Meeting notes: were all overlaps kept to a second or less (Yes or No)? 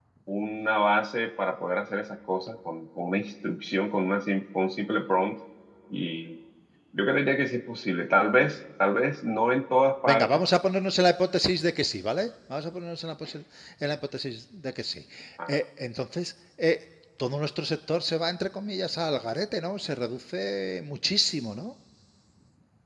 Yes